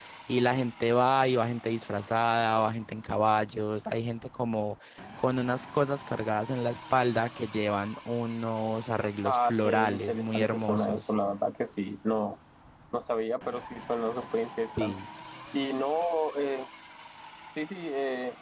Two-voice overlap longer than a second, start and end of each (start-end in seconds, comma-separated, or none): 9.2-11.1